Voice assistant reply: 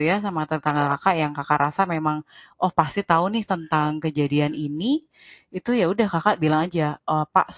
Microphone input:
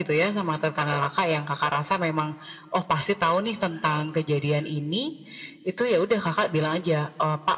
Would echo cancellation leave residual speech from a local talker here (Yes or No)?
No